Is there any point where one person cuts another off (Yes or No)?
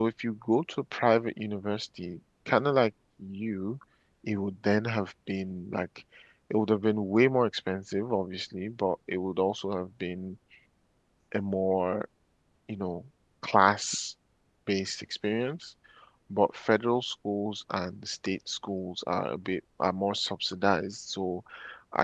No